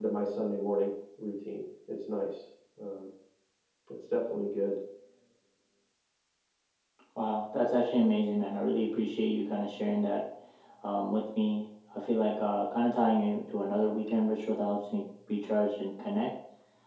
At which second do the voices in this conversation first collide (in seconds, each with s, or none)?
none